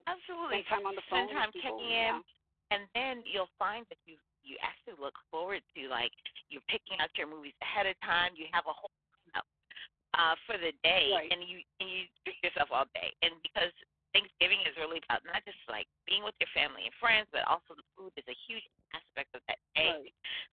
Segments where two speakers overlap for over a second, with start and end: 0.5-2.2

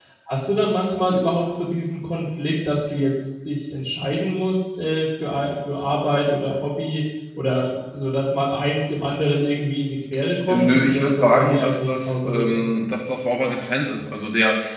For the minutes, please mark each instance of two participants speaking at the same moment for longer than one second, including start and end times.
10.5-12.7

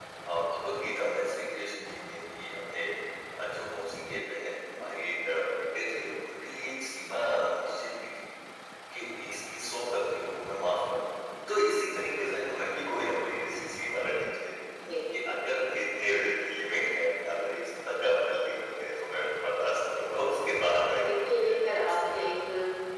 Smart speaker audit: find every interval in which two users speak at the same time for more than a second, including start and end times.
20.1-22.5

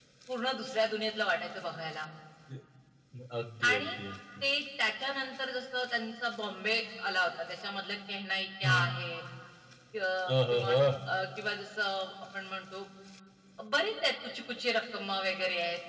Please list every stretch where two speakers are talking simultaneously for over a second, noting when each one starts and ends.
none

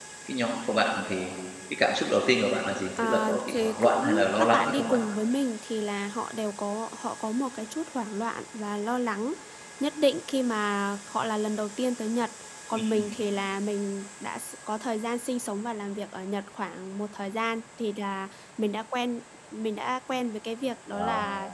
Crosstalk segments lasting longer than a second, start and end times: 3.0-5.0

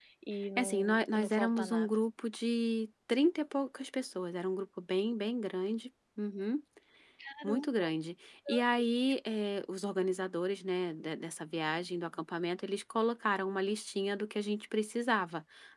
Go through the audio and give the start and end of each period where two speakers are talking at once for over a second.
0.6-1.9

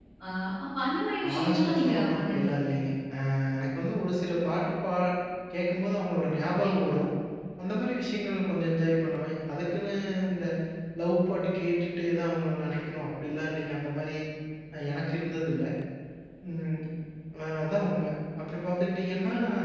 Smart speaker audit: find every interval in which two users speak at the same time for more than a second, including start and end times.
1.3-2.7

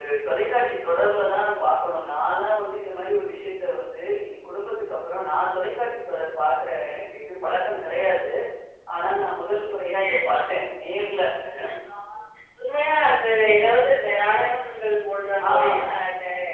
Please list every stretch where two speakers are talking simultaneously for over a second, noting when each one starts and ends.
none

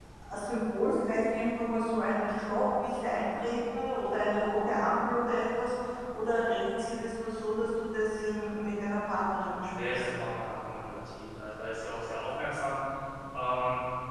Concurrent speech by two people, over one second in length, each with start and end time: none

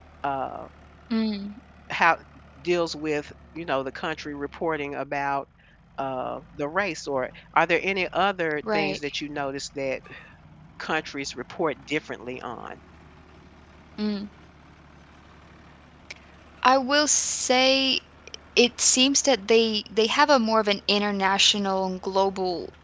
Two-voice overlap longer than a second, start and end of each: none

